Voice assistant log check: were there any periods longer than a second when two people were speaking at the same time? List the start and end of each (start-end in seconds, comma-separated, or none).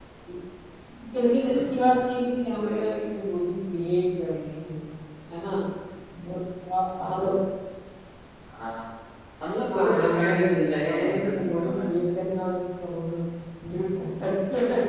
1.4-3.1, 9.7-11.7